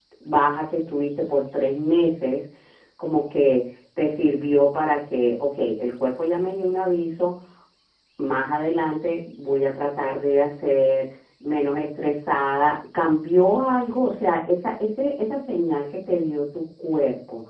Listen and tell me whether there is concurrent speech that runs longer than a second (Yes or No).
No